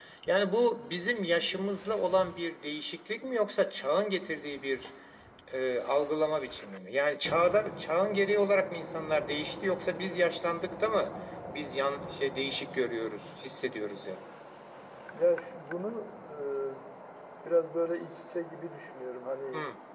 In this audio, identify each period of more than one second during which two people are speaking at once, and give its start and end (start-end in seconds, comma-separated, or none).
none